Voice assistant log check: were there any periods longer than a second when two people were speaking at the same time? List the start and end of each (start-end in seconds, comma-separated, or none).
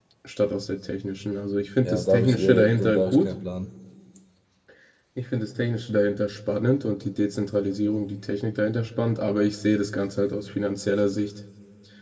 1.9-3.3